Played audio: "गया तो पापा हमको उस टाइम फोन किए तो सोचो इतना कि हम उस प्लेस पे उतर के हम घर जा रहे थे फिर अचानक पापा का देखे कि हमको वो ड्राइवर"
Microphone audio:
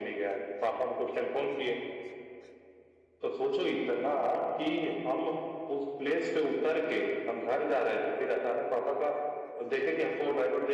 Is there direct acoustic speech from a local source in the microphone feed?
No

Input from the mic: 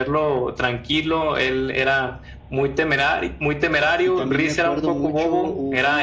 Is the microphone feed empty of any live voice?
No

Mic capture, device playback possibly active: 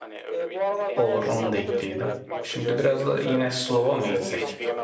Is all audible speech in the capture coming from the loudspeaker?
No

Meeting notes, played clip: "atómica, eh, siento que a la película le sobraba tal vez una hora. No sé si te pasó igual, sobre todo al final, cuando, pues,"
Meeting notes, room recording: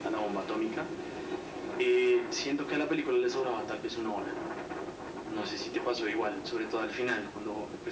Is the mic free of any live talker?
Yes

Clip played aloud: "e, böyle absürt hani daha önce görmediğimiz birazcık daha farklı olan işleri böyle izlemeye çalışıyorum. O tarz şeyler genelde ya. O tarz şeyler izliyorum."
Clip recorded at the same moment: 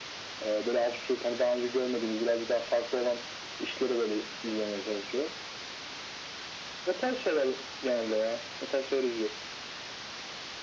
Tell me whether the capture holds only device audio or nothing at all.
Yes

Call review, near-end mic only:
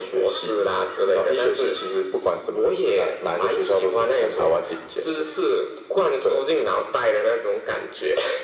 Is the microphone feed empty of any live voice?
Yes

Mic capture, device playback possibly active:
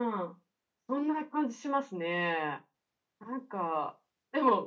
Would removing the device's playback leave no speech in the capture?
Yes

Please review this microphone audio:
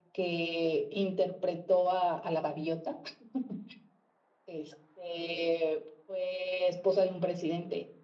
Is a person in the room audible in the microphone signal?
Yes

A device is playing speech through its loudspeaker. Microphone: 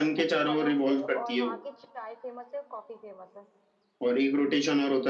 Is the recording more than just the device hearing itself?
Yes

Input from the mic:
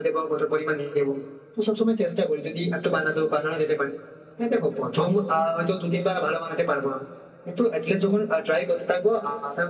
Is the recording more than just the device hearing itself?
No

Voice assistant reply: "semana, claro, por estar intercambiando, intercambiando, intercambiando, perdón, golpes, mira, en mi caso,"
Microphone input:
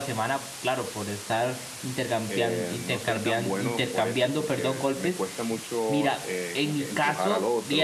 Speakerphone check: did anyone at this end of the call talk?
Yes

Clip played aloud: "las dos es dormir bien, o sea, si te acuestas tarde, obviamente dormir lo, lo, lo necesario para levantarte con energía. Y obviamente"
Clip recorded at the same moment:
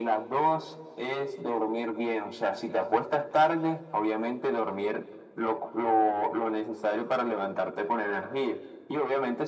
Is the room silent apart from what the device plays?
Yes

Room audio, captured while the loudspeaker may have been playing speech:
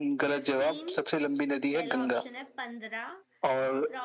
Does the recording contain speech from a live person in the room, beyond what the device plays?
Yes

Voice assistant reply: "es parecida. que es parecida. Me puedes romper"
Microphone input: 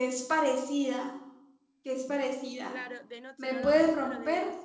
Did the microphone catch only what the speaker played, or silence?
No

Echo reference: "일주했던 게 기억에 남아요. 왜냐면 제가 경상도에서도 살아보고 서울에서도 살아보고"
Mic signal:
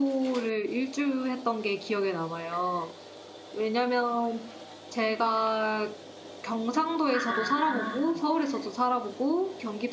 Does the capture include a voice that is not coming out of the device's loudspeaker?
Yes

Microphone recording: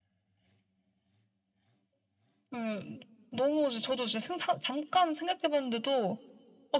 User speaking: No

